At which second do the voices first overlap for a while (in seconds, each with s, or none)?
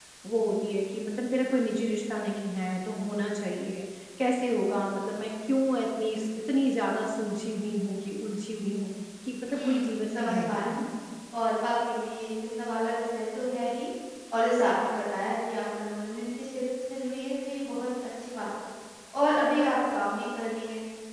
9.5 s